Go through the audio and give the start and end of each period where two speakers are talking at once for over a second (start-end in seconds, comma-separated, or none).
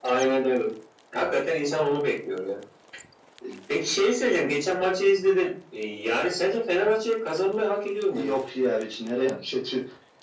none